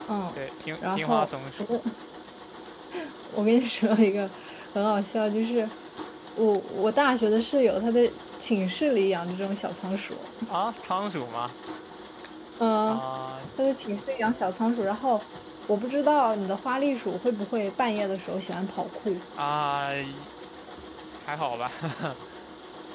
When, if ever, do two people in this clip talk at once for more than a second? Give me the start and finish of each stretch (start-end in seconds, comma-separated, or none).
none